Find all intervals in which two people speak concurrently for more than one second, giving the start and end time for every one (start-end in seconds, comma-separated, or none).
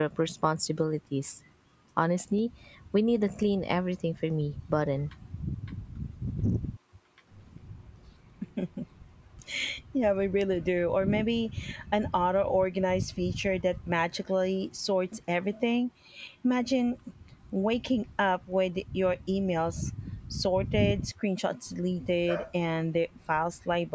none